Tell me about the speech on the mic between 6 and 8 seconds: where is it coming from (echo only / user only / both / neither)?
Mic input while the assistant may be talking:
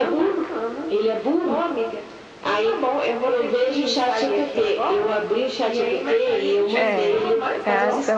both